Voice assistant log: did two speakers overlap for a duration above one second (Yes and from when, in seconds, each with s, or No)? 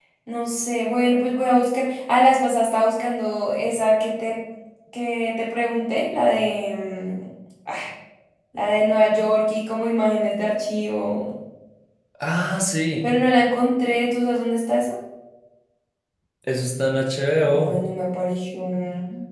No